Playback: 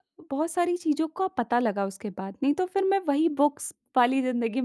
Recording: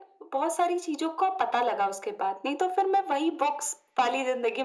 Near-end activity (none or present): none